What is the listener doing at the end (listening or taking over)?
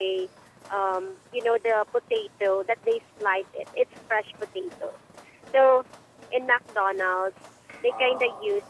listening